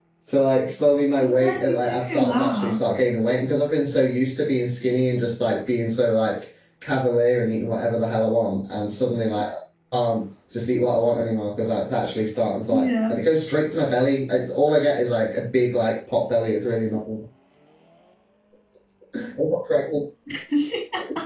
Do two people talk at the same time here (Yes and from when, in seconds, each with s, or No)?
Yes, from 1.2 s